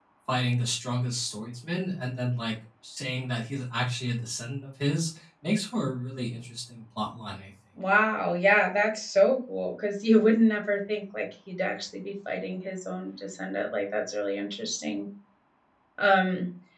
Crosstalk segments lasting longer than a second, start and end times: none

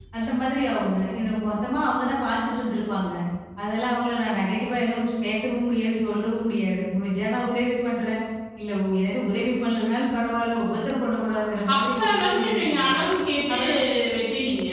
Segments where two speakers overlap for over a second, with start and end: 11.7-12.9

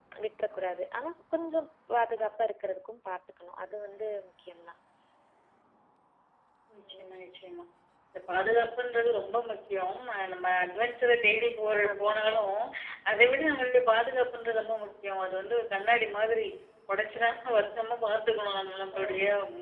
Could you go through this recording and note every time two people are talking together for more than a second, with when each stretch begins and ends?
none

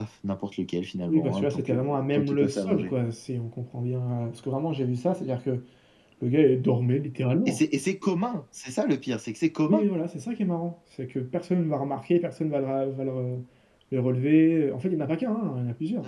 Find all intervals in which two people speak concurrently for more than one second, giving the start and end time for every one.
1.1-2.9

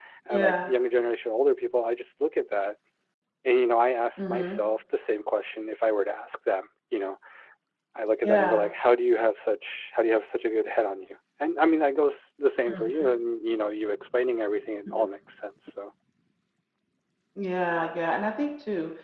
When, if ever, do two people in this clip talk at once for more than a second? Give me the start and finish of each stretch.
none

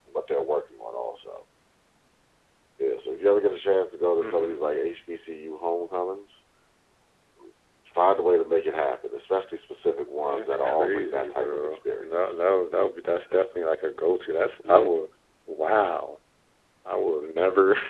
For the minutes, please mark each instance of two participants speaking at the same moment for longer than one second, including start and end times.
10.2-12.4

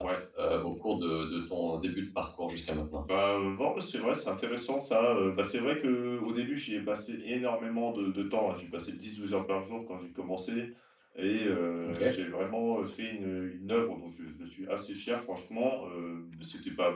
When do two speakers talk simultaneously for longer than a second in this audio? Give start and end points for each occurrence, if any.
none

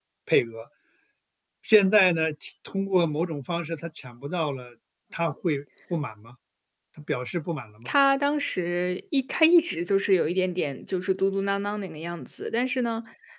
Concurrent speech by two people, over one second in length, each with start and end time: none

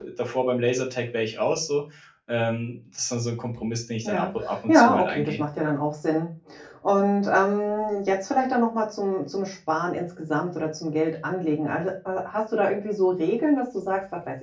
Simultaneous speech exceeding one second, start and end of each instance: 4.0-5.4

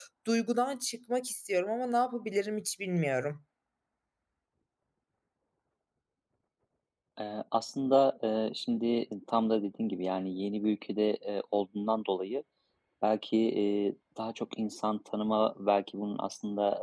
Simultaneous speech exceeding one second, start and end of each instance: none

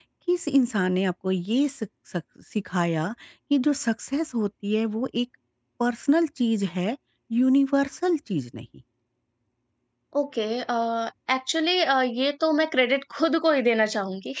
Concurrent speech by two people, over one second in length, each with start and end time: none

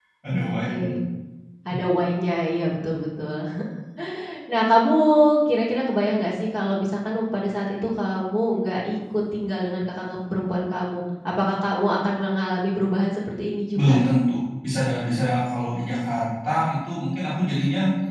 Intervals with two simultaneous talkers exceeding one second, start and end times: none

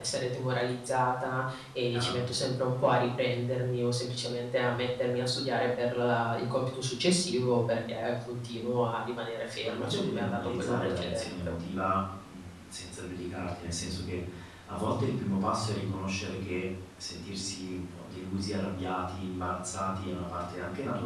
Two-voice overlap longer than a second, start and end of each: 9.5-11.3

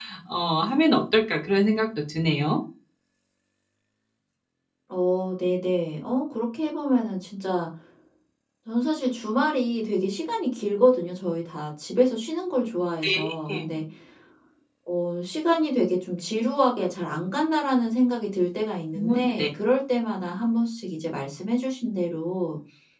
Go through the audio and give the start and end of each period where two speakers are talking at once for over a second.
none

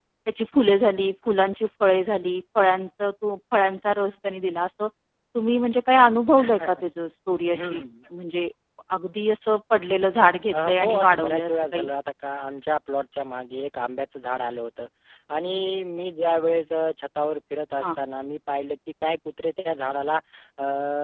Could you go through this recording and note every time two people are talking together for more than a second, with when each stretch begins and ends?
10.5-11.9

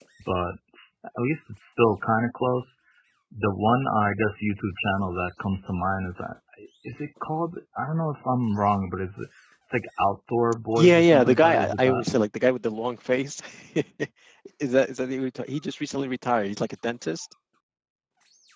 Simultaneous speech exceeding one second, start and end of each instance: 10.8-12.0

